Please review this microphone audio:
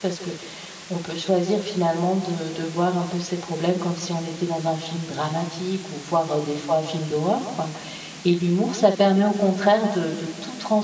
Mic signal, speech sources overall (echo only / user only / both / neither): user only